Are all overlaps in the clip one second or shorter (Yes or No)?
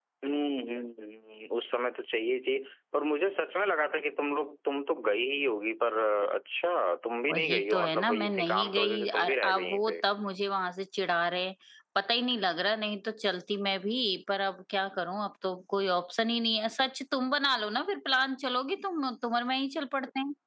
No